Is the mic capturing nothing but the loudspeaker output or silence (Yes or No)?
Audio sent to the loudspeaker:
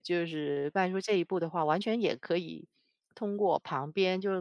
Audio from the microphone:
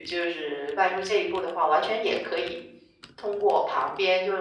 Yes